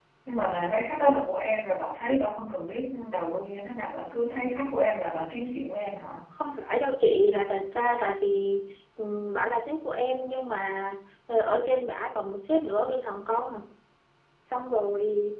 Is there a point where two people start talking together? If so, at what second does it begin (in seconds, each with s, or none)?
none